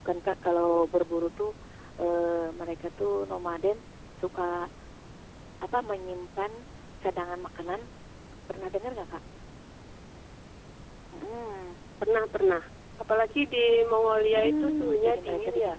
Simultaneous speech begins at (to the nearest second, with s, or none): 14 s